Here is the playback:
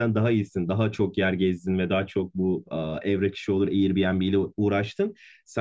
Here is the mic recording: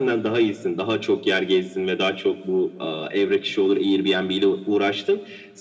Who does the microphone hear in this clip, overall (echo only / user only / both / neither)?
echo only